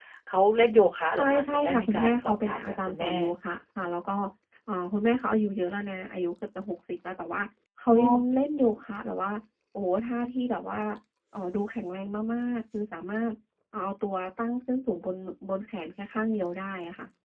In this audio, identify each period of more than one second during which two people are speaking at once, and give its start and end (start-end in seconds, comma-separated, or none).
1.2-3.1